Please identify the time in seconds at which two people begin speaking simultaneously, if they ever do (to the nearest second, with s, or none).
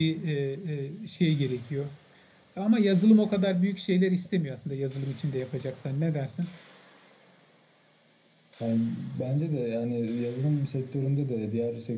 none